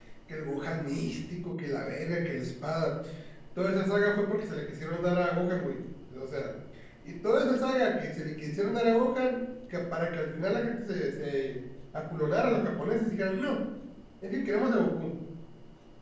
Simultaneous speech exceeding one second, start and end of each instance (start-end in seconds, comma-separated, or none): none